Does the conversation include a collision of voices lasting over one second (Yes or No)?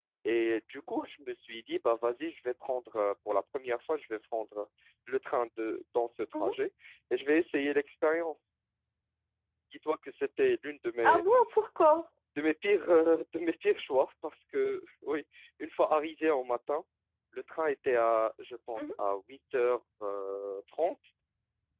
No